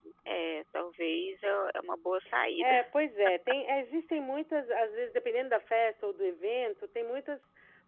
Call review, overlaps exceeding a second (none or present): none